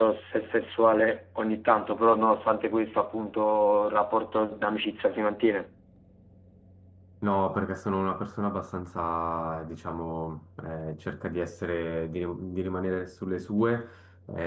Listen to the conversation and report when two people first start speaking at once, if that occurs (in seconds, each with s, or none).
none